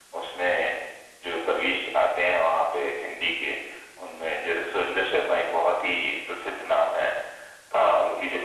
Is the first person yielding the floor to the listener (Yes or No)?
No